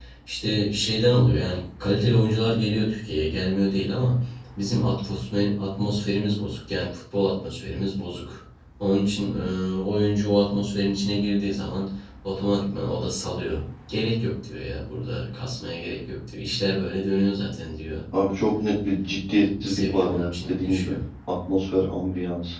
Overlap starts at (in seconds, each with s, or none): 19.5 s